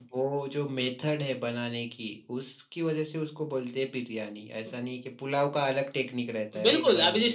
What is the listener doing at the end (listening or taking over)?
taking over